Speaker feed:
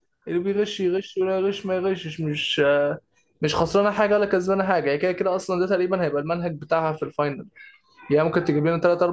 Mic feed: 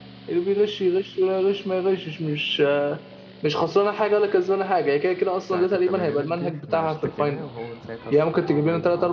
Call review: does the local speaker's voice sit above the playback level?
No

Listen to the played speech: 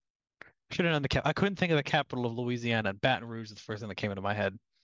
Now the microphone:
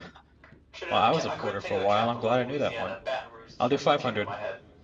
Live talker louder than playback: Yes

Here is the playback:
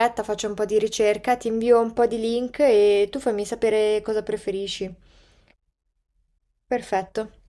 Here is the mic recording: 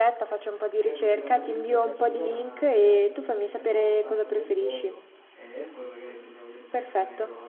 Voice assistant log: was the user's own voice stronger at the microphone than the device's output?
No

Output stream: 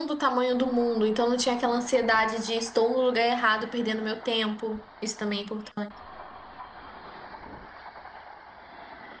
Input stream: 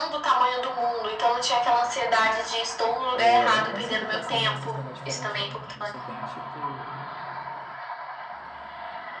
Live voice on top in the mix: No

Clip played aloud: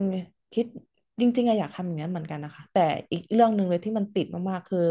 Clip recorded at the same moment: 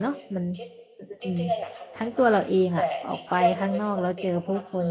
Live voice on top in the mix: Yes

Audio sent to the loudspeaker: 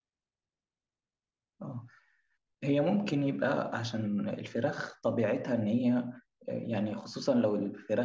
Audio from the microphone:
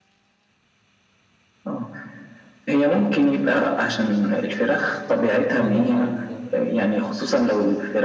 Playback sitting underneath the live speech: No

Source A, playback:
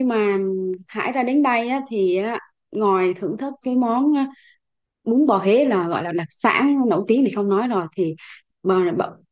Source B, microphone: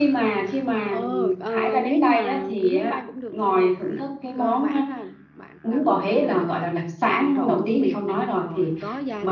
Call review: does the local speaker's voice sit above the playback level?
No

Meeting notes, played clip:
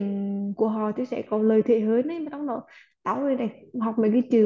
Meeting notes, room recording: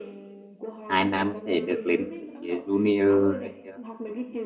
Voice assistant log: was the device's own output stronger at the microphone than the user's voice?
No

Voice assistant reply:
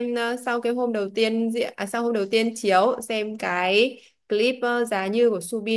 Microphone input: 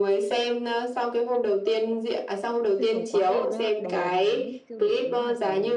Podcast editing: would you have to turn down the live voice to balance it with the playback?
No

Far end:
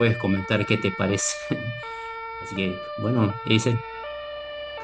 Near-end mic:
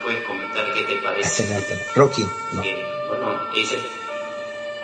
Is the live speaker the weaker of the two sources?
No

